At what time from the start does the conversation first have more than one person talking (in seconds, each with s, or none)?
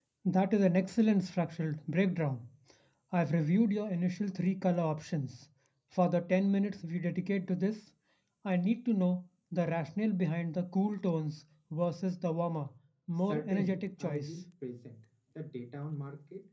13.2 s